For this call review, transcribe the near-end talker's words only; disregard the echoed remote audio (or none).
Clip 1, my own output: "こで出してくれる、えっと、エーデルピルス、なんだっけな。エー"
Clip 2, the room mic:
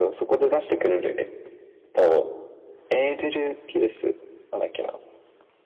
none